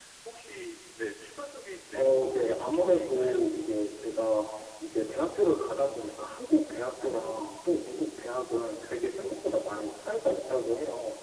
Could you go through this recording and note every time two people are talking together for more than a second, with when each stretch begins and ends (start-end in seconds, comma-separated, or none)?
1.9-3.5